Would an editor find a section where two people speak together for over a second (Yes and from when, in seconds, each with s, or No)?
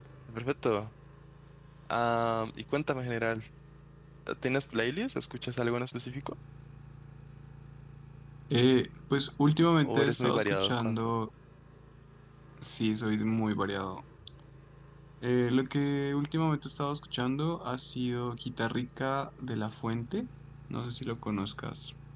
Yes, from 9.8 s